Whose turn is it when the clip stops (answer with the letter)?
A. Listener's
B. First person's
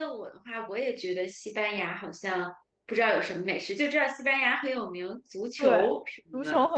A